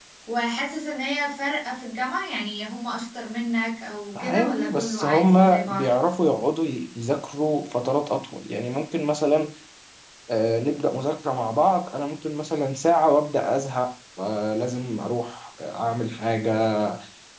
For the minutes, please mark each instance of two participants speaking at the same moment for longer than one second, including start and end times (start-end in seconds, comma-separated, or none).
4.2-5.9